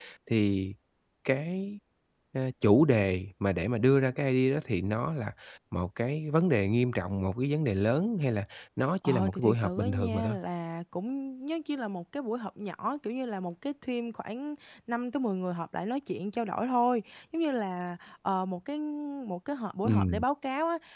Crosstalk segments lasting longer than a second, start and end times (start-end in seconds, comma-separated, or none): 9.1-10.3